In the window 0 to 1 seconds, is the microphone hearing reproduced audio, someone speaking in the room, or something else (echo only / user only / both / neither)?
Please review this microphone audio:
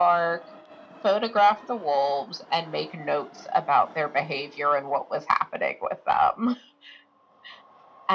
echo only